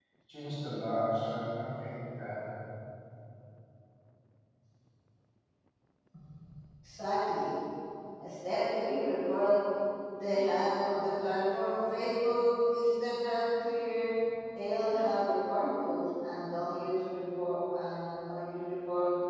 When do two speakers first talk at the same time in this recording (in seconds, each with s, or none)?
none